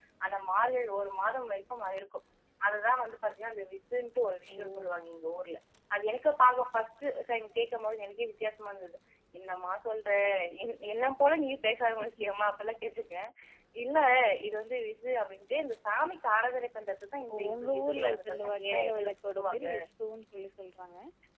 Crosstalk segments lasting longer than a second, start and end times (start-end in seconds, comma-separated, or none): 17.3-19.6